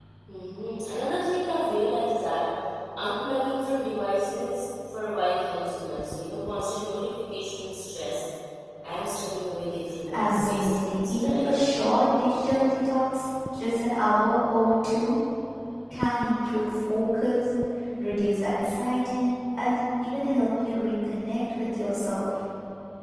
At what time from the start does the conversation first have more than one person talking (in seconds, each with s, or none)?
10.1 s